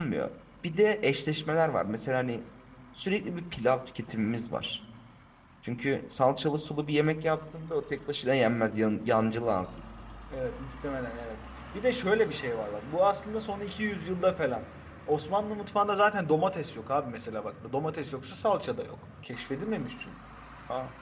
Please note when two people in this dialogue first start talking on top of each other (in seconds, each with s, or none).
none